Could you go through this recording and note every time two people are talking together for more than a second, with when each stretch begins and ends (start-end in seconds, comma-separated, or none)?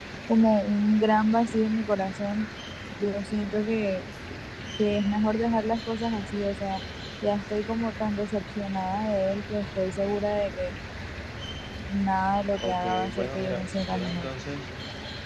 12.6-14.3